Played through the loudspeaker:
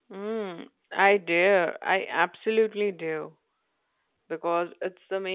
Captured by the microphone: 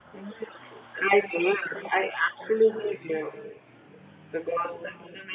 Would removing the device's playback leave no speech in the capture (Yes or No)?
Yes